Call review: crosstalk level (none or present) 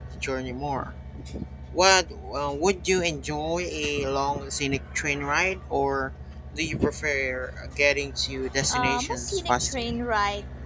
present